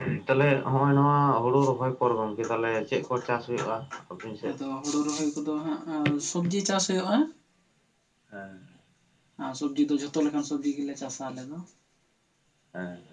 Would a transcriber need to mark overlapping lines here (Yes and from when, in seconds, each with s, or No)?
No